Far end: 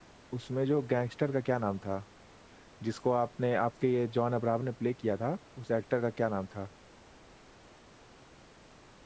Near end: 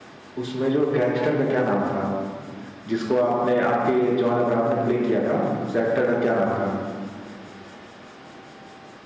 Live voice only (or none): none